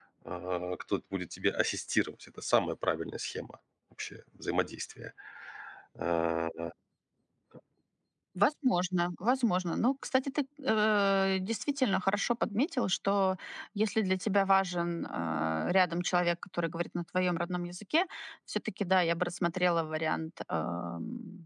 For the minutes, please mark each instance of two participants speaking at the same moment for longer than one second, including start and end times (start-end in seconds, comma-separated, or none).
none